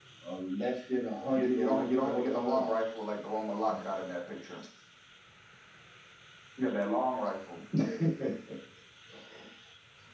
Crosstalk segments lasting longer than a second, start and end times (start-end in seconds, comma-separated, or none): 1.3-3.1